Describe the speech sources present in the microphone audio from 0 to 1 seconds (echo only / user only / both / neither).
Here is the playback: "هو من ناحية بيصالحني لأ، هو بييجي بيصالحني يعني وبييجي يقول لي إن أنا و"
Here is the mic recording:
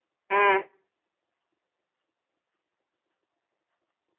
user only